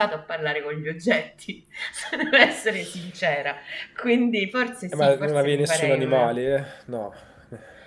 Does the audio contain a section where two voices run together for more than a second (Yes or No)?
Yes